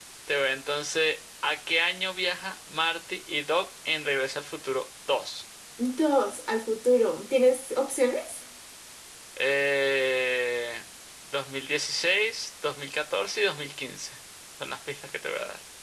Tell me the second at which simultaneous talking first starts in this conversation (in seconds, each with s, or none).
none